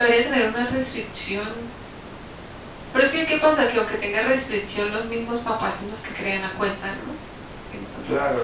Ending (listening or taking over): taking over